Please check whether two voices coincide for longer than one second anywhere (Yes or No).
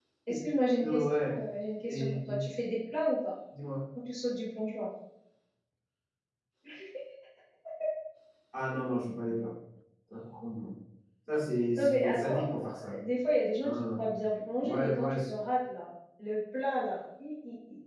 Yes